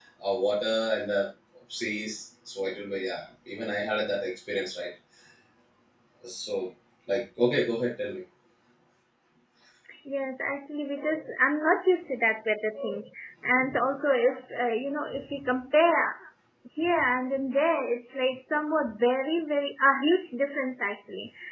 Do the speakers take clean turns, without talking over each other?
Yes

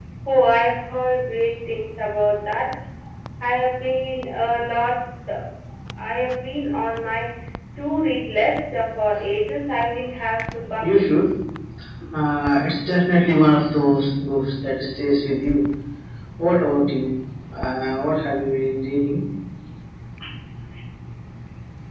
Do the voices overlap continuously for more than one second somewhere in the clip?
No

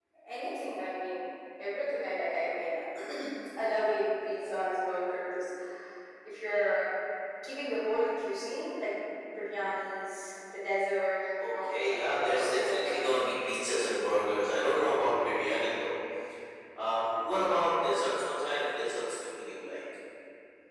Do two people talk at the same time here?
Yes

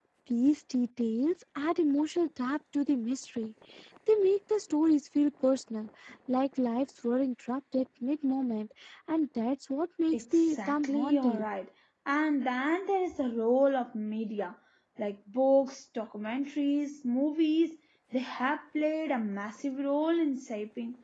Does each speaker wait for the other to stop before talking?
No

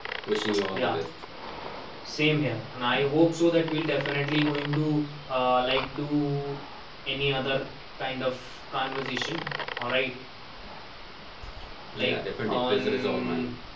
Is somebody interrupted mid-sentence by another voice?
Yes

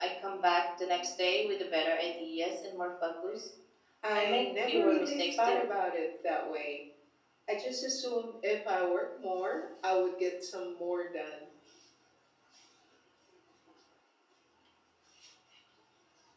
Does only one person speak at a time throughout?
No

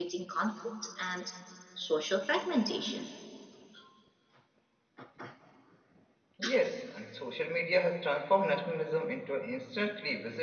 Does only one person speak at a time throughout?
Yes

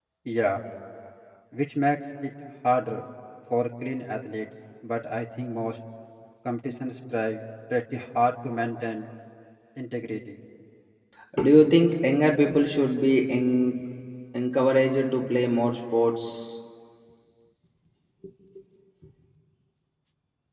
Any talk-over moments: No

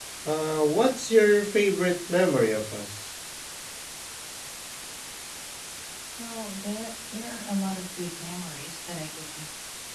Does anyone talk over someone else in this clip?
No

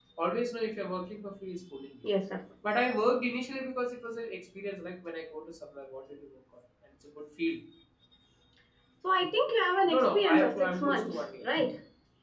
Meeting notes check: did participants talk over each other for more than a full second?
Yes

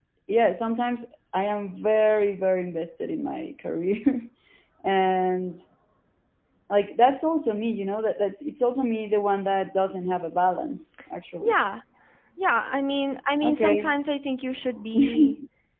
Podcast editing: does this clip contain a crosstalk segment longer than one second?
No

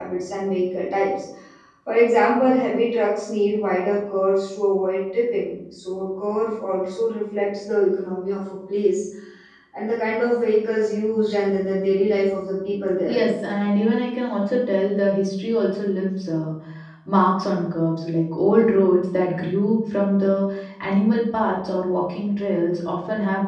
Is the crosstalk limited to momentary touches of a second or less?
Yes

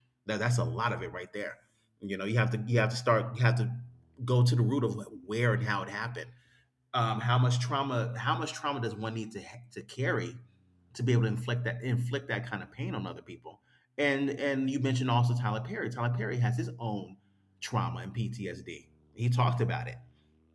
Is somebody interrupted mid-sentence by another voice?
No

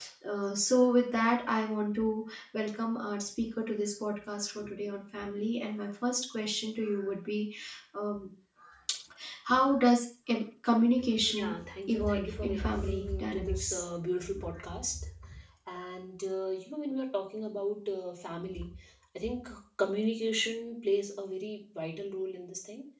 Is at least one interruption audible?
Yes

